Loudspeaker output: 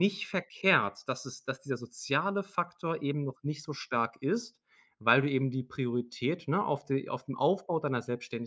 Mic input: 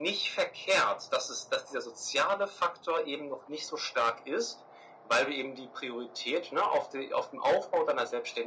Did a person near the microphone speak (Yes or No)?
No